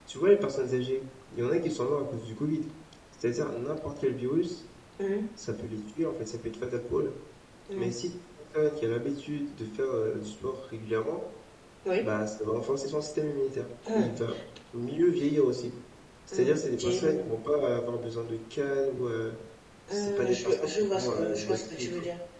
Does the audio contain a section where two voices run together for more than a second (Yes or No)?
Yes